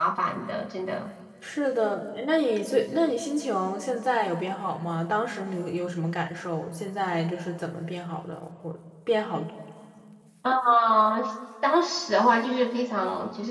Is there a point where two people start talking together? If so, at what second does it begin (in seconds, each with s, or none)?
none